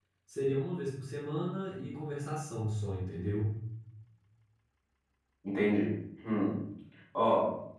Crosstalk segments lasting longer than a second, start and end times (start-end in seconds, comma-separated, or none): none